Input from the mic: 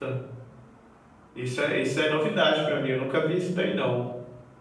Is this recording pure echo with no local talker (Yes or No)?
No